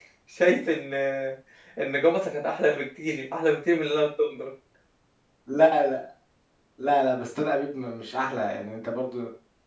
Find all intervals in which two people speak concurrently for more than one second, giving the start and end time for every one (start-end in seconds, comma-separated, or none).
none